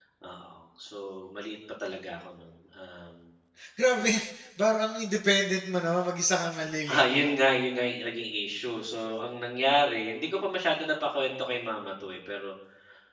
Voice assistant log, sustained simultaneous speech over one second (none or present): none